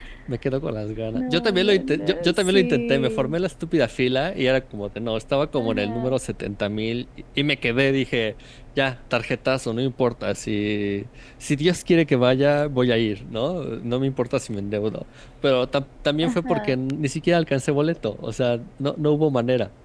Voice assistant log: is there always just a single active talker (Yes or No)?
No